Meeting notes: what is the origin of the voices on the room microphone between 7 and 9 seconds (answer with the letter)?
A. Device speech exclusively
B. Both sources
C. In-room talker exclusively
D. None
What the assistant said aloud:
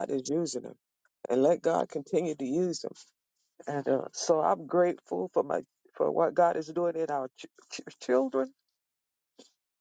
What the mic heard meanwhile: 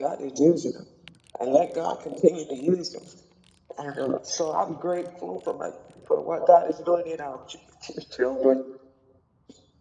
A